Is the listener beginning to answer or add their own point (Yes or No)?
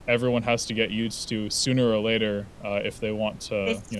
Yes